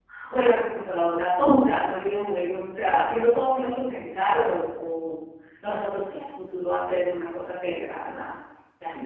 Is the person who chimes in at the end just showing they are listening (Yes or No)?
No